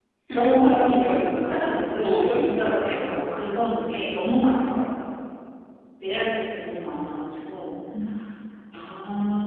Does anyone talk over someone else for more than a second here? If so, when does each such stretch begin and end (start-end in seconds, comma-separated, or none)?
0.7-3.4